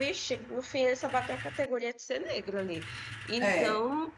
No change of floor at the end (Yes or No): Yes